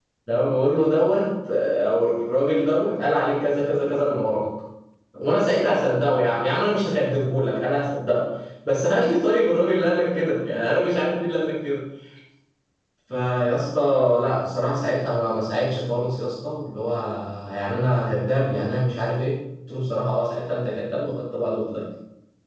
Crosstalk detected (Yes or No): No